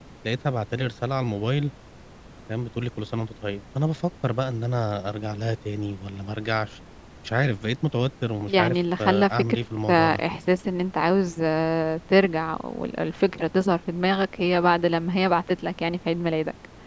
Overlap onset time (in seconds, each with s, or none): 8.5 s